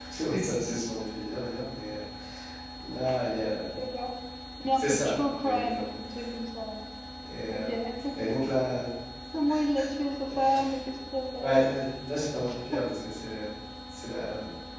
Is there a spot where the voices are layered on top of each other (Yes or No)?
Yes